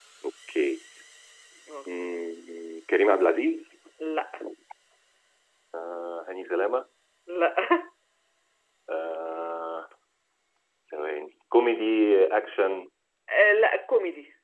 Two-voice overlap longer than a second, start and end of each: none

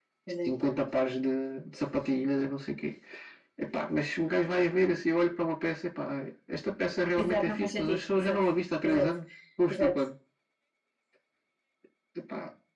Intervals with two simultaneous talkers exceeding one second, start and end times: 7.2-8.4

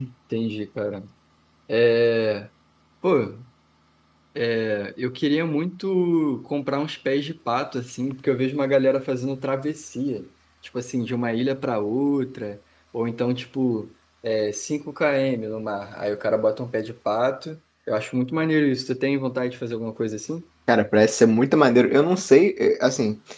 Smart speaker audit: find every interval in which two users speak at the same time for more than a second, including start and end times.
none

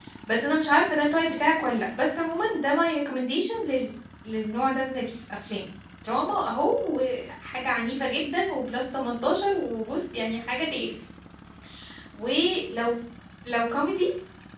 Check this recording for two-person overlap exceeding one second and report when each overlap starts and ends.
none

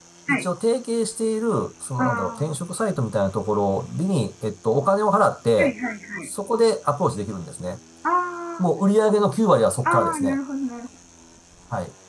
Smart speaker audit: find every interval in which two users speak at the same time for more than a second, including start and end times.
none

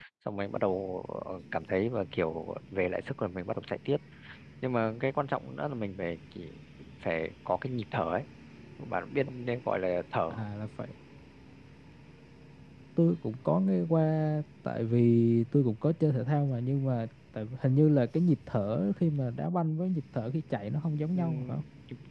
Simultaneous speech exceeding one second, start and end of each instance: none

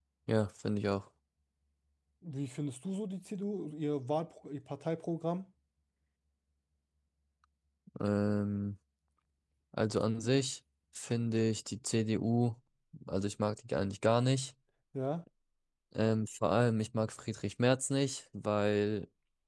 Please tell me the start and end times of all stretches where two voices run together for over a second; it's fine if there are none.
none

